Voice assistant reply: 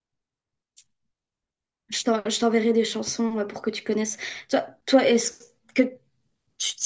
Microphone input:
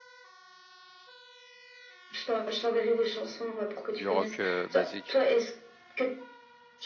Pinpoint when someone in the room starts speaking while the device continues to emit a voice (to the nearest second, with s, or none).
4 s